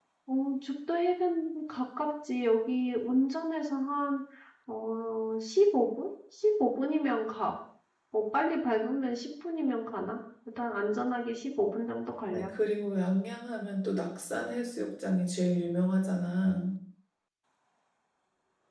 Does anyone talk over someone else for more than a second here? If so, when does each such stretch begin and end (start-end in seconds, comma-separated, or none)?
none